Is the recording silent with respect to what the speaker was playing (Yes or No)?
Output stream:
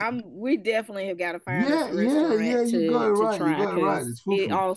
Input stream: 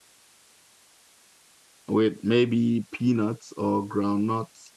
Yes